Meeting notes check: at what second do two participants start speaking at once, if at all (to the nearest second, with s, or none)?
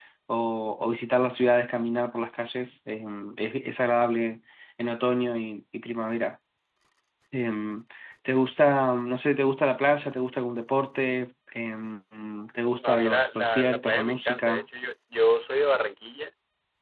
13 s